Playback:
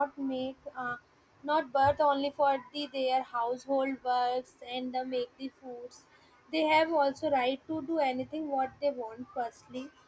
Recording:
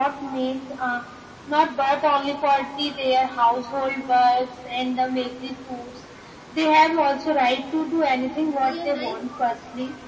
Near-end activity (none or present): present